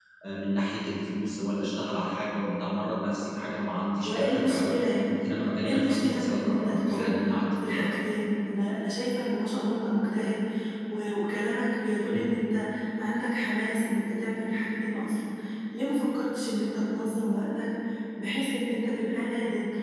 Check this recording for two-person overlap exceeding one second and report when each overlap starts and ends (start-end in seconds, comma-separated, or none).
4.0-7.2